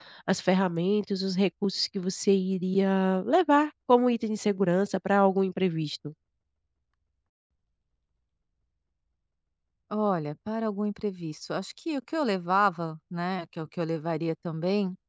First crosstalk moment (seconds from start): none

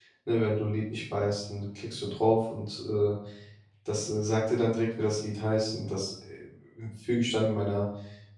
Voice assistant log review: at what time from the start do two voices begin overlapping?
none

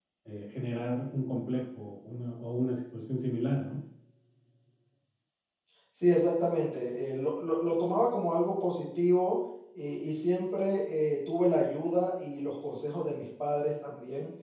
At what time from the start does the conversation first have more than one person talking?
none

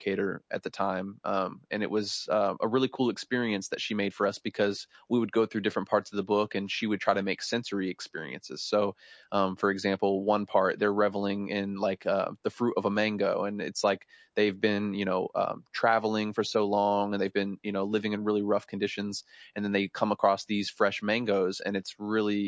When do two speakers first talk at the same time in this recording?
none

